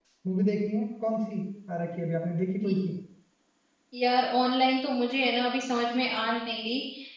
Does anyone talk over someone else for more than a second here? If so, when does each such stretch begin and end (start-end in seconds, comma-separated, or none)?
none